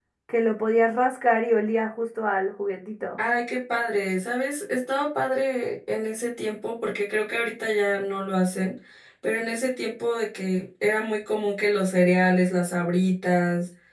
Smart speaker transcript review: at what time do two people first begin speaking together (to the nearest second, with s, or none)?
none